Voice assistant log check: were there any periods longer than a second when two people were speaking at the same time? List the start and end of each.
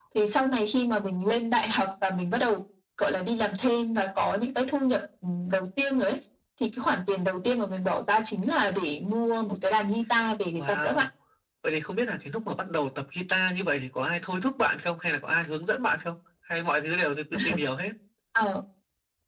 none

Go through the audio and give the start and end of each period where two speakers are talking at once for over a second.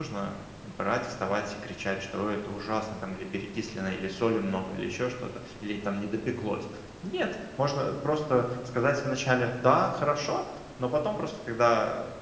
none

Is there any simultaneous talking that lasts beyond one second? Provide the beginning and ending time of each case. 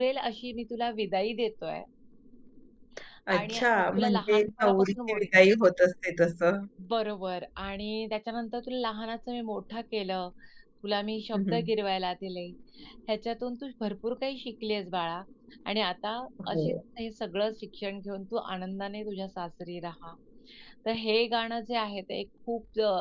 3.4-5.2

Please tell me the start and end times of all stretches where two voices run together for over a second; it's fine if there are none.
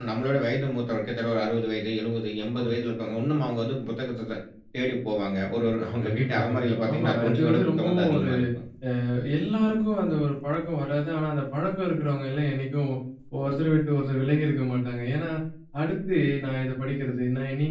6.0-8.3

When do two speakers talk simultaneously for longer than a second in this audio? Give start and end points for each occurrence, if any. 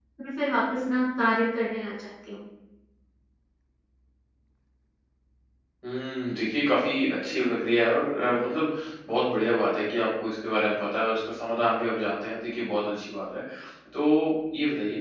none

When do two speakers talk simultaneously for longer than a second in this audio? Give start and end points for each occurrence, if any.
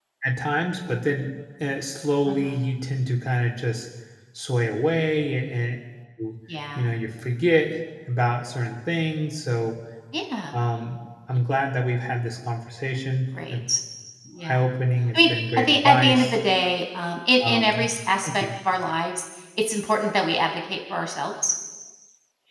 15.2-16.4

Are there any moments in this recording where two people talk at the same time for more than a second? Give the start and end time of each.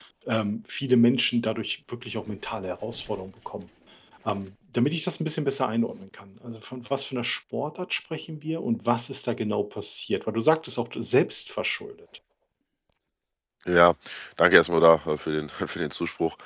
none

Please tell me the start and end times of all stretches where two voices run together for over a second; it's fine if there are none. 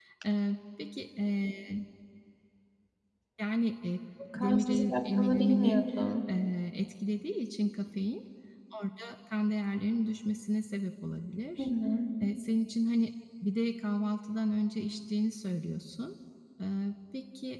4.3-5.8

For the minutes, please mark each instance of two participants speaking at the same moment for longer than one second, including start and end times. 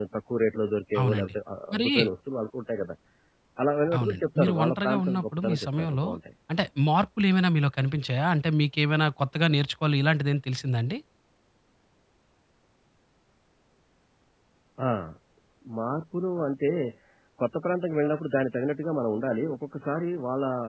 4.0-6.0

